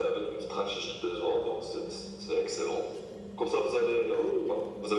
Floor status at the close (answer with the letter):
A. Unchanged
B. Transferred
A